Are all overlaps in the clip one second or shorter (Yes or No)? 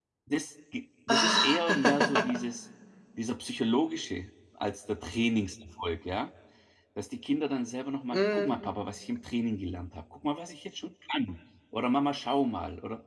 No